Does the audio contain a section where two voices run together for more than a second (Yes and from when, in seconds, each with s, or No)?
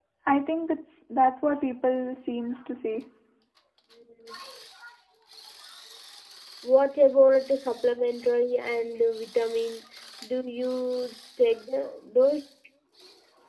No